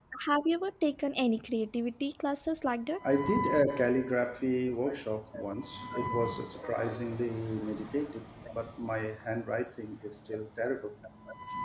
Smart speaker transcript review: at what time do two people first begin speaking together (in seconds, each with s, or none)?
none